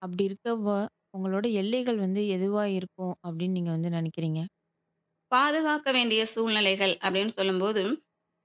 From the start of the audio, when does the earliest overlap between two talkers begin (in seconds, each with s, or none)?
none